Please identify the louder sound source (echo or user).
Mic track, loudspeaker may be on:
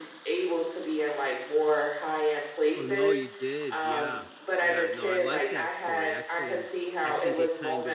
echo